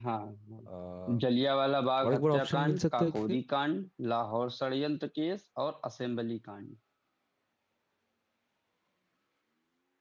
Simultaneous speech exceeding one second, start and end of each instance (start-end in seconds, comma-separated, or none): 2.0-3.4